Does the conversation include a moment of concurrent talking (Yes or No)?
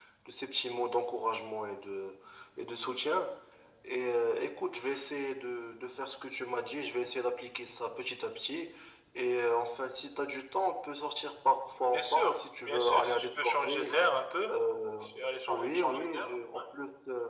Yes